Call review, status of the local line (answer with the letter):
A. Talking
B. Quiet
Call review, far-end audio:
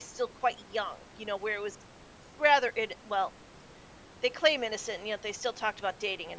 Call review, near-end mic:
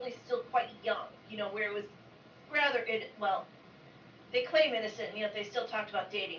B